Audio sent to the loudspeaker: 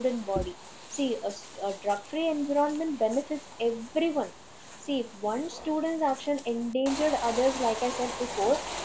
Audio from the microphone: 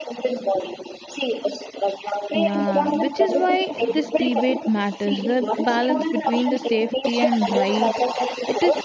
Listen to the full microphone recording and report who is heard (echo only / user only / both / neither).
both